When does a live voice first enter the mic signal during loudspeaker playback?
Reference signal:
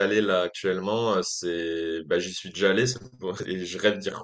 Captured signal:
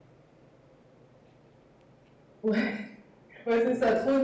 2.4 s

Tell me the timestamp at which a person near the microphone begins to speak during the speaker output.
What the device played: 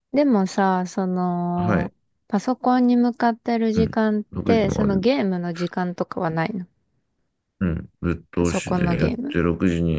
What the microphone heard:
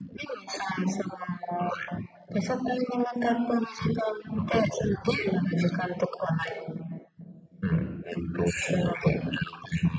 none

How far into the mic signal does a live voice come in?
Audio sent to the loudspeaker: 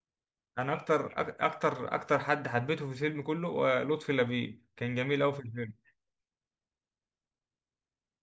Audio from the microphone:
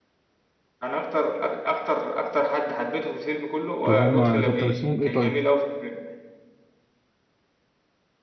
3.8 s

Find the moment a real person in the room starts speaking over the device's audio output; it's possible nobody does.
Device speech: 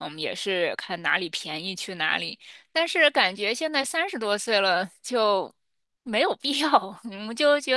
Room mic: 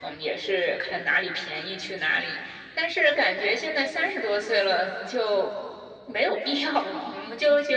none

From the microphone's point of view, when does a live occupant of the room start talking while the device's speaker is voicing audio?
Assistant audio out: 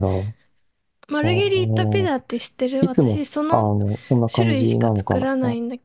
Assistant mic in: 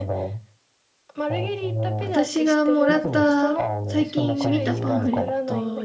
2.0 s

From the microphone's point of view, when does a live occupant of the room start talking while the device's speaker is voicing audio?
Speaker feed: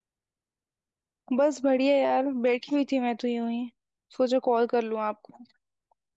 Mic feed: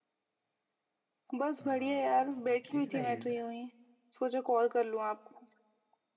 1.6 s

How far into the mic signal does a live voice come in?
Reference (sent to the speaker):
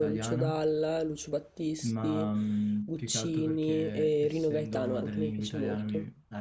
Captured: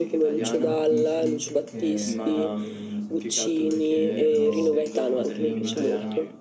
0.3 s

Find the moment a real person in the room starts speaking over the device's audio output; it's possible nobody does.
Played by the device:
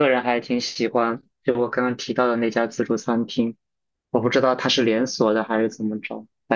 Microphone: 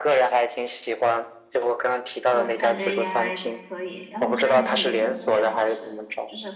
2.3 s

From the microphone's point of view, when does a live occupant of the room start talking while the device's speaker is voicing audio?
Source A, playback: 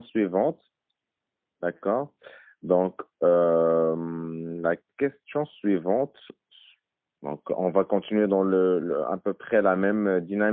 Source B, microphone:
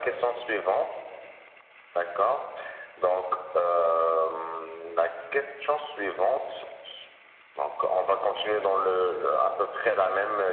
none

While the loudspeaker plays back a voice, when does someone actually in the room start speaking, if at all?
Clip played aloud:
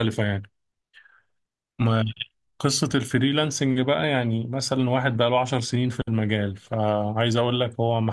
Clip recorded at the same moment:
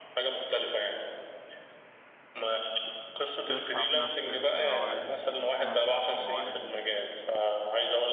3.5 s

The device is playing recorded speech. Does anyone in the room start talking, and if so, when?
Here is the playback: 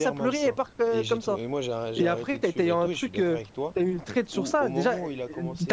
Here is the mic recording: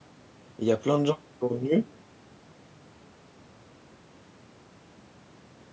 0.6 s

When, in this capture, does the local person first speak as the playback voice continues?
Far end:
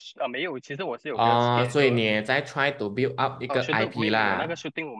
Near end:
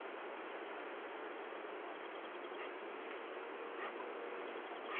none

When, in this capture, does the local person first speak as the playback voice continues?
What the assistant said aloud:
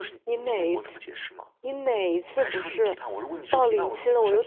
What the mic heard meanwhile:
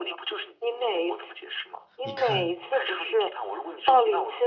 2.0 s

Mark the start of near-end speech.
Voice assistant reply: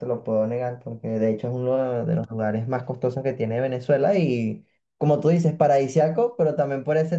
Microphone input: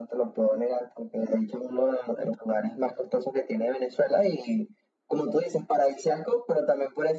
none

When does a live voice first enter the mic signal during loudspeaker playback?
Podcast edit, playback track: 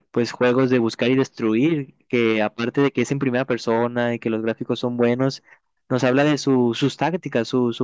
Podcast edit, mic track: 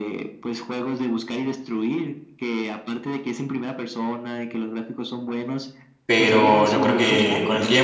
6.1 s

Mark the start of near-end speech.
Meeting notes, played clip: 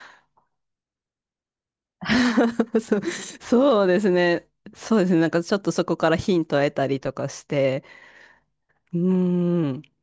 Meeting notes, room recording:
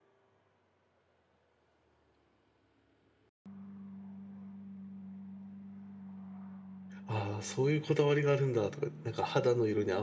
7.0 s

